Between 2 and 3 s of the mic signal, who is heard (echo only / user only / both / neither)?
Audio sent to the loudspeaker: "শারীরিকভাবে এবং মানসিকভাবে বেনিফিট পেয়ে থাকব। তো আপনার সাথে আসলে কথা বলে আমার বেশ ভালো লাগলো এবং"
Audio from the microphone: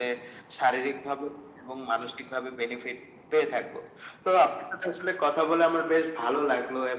echo only